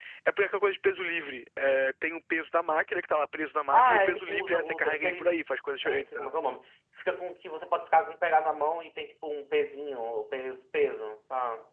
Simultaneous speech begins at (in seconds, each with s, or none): 3.7 s